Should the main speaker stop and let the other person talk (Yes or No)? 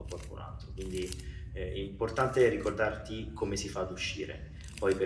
No